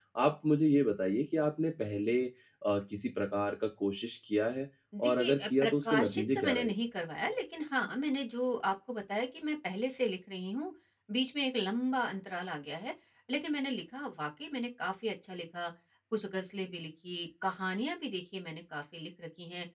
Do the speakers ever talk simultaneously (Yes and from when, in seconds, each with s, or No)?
Yes, from 4.9 s